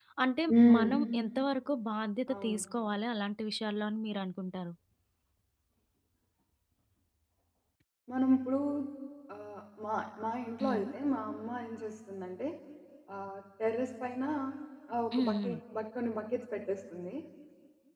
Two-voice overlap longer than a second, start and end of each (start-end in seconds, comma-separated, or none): none